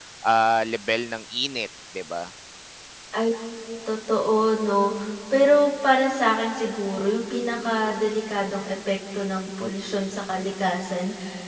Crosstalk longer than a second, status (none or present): none